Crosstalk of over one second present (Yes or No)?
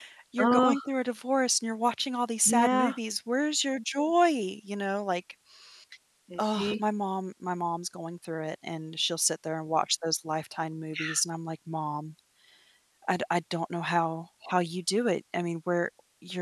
No